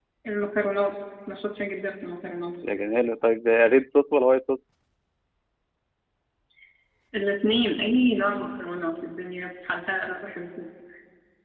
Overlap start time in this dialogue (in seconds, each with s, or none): none